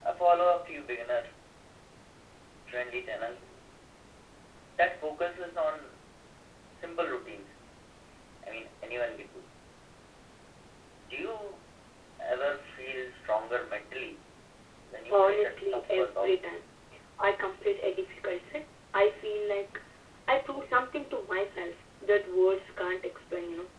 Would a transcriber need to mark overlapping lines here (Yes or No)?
Yes